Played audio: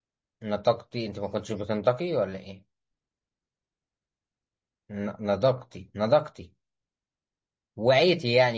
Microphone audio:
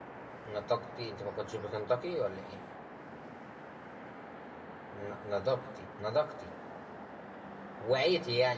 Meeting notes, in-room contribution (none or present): none